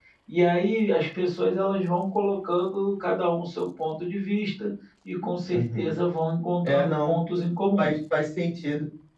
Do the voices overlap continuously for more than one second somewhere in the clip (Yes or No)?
No